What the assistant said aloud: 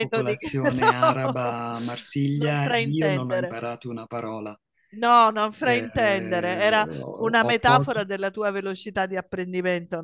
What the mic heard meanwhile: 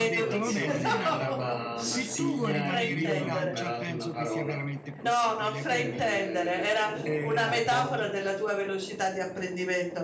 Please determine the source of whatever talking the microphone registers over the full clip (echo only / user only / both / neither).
both